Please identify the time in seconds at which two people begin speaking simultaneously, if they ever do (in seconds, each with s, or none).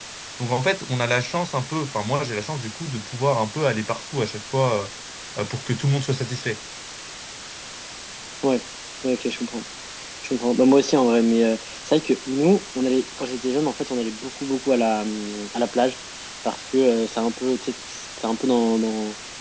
none